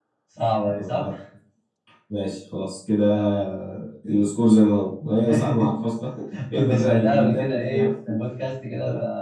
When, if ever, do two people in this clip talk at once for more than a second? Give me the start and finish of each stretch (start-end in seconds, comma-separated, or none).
6.5-7.9